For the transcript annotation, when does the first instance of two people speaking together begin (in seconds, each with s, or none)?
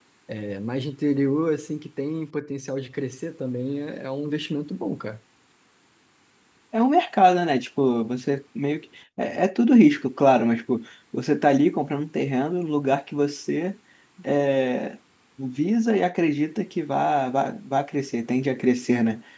none